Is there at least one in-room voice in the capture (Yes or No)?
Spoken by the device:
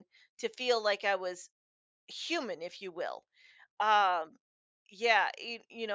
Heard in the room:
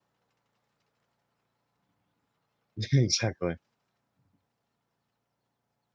Yes